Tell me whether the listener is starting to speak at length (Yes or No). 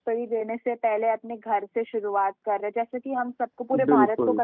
No